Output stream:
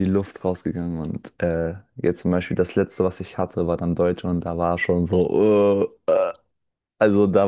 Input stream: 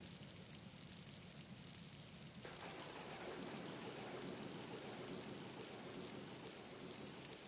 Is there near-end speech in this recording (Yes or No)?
No